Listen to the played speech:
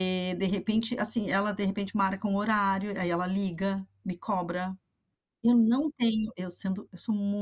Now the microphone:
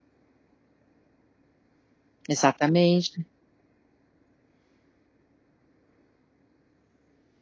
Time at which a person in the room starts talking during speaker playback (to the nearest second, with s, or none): 2 s